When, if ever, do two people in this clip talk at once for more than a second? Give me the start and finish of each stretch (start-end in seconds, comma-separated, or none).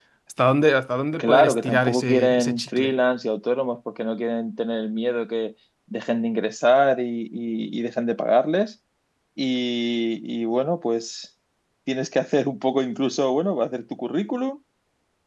1.2-2.9